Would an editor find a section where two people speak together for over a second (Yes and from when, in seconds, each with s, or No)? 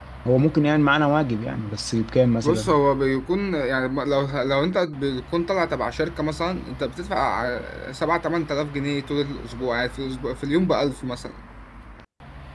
No